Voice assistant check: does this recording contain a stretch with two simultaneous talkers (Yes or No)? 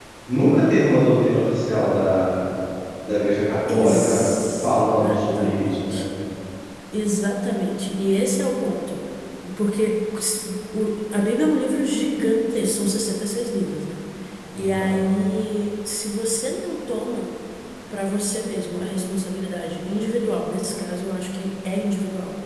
Yes